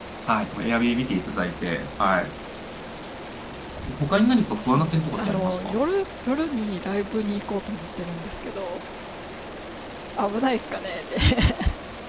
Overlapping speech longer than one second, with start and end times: 4.6-5.8

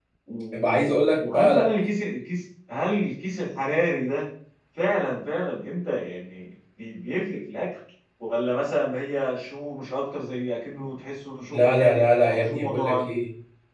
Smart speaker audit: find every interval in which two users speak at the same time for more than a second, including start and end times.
11.5-13.1

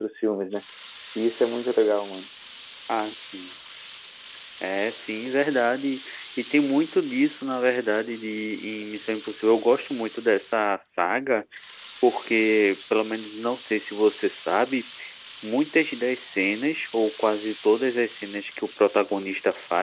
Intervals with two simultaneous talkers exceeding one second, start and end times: none

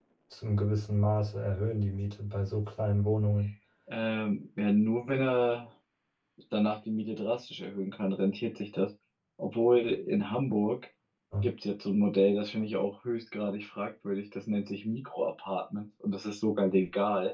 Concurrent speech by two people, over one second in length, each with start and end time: none

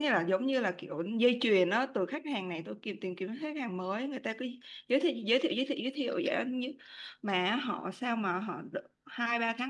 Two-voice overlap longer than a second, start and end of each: none

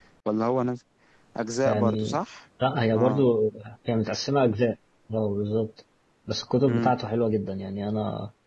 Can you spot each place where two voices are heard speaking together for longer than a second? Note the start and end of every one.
none

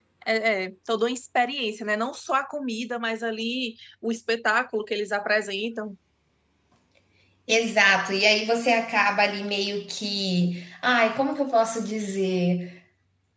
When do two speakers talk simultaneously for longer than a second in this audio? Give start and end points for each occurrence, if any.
none

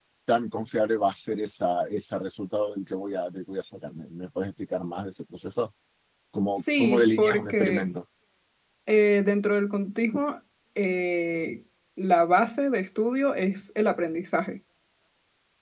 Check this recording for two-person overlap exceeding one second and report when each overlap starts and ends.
6.6-7.9

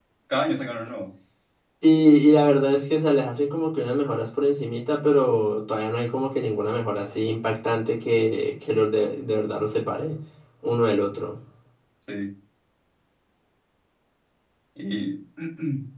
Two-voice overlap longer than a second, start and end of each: none

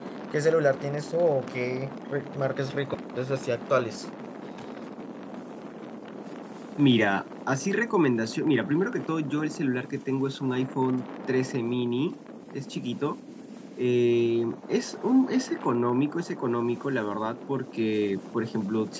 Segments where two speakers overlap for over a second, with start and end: none

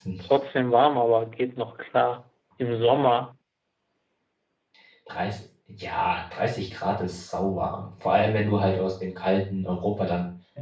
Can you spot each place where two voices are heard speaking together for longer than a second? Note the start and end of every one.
none

